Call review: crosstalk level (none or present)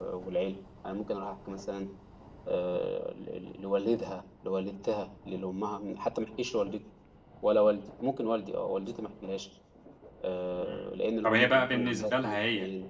present